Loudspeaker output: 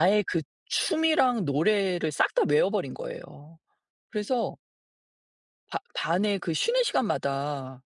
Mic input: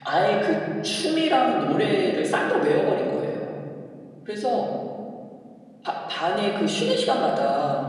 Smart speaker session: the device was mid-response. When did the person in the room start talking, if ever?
none

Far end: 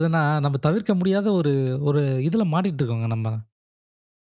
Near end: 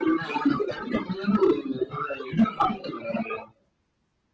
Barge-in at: none

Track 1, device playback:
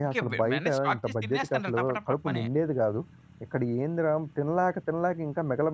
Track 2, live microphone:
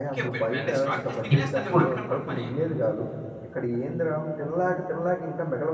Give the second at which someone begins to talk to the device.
1.3 s

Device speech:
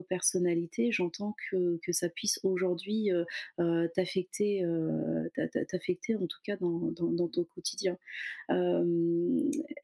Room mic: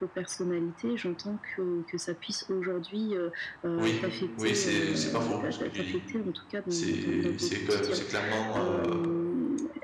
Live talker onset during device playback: 3.8 s

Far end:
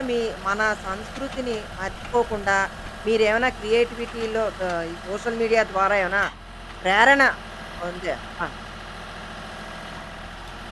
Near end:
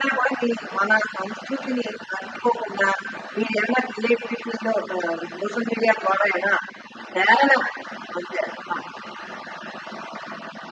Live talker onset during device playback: none

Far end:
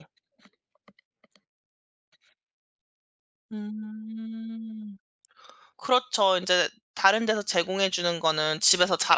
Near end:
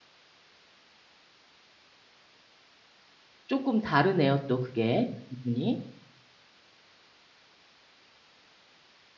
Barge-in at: 3.5 s

